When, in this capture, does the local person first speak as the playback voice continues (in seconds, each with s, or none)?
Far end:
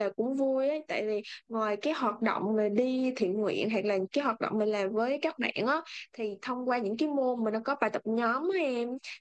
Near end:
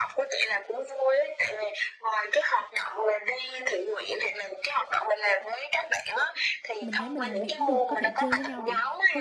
6.8 s